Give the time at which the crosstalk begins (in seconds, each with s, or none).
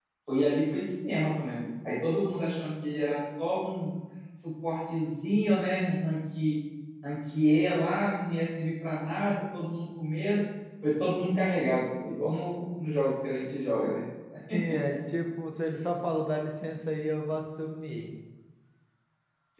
none